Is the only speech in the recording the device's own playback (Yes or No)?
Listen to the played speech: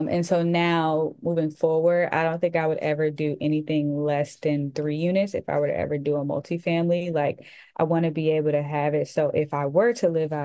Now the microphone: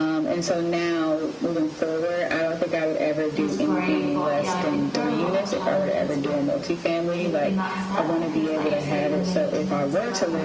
No